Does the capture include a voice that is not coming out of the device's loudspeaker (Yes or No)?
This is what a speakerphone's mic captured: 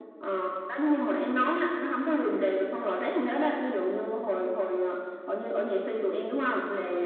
No